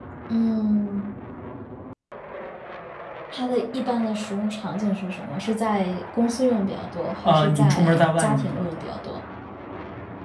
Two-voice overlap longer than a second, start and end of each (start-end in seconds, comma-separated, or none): 7.2-8.8